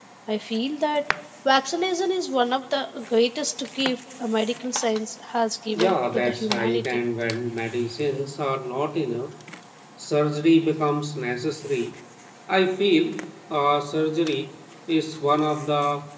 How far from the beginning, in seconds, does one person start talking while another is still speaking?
5.7 s

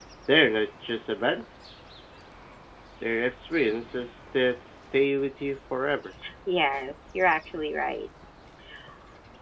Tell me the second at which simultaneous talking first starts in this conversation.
none

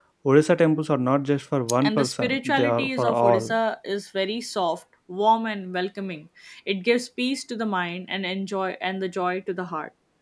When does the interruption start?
1.8 s

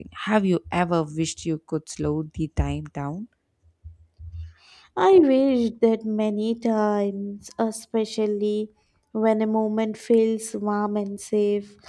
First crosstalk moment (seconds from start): none

